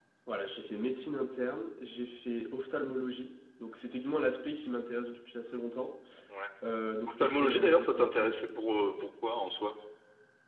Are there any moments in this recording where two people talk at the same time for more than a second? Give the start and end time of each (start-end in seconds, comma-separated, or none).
7.1-8.5